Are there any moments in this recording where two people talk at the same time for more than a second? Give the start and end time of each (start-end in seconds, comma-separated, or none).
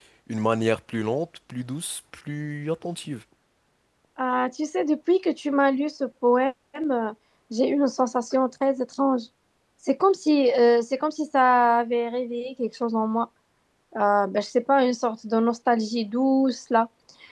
none